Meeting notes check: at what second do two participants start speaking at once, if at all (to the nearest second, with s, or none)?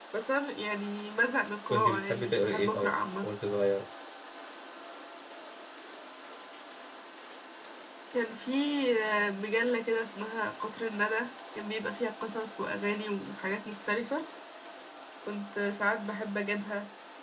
2 s